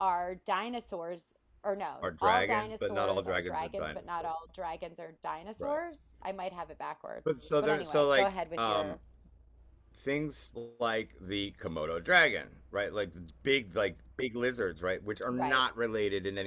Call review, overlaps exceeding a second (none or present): present